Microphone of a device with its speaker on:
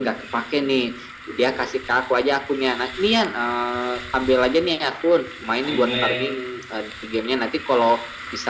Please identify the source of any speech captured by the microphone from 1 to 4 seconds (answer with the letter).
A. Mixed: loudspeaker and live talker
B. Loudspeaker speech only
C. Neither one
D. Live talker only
B